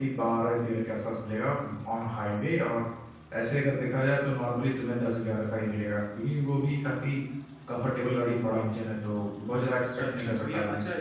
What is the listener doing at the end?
taking over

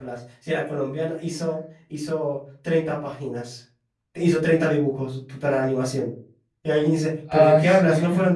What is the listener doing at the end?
listening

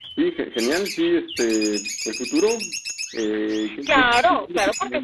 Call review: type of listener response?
taking over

